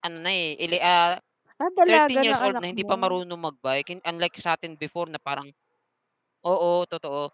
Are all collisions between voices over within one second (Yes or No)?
No